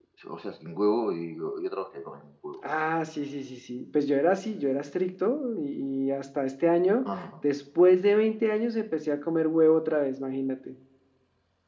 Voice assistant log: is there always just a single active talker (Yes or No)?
Yes